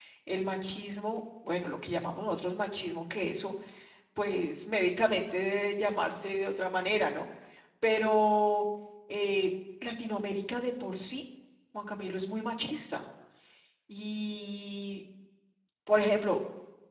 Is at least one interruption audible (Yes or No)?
No